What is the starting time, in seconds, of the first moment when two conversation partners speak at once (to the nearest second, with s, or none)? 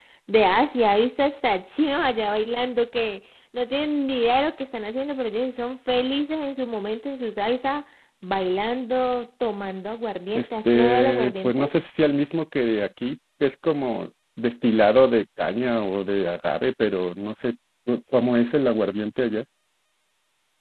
10 s